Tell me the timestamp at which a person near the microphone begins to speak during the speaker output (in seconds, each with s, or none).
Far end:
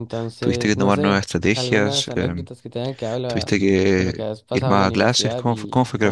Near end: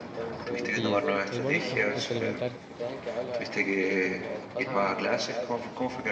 0.7 s